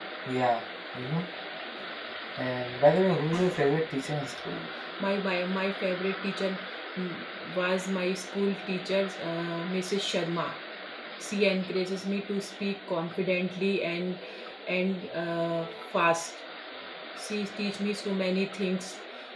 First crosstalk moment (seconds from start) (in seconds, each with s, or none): none